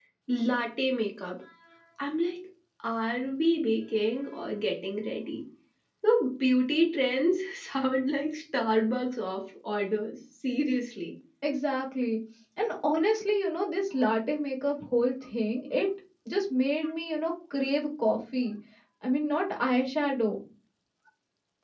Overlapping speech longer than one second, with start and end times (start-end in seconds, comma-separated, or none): none